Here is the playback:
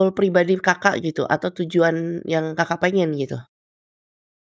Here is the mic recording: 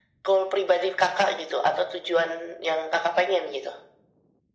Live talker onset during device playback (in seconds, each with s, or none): none